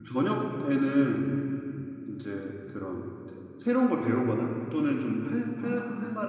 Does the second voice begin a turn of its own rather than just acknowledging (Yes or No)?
No